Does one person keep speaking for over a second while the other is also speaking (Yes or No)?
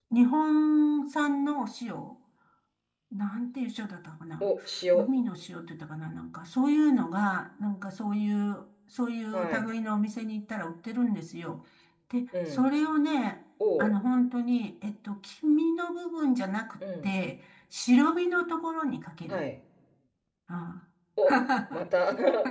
No